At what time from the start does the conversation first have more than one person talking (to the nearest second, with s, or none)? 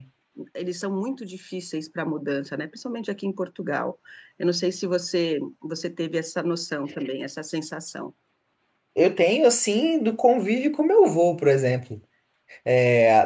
none